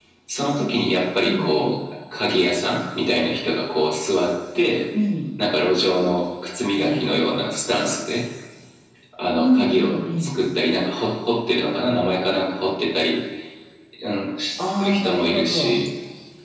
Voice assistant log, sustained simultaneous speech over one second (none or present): present